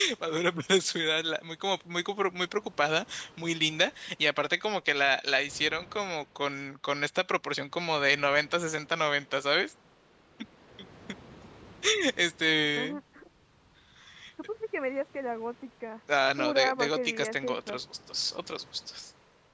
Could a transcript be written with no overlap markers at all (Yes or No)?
No